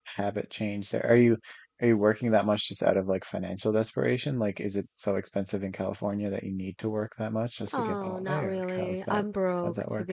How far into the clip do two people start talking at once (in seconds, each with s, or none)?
7.7 s